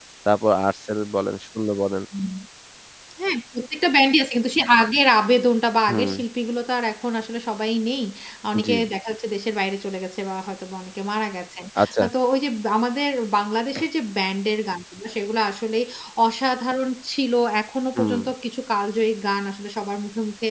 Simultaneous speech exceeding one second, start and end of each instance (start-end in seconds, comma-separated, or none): none